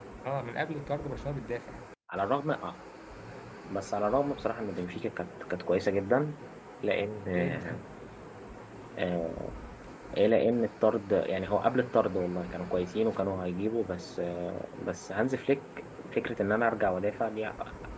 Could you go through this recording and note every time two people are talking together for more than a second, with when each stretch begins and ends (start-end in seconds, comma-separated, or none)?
none